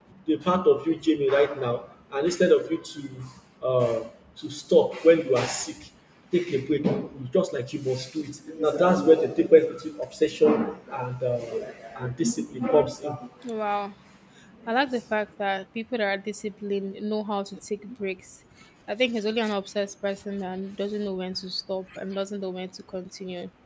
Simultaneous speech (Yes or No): No